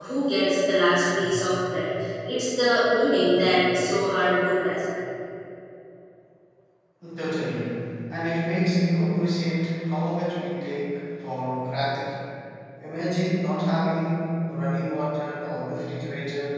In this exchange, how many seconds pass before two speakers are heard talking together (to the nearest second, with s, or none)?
none